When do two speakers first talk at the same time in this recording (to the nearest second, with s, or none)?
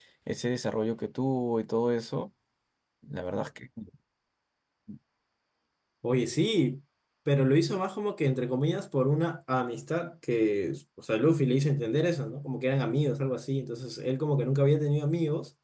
none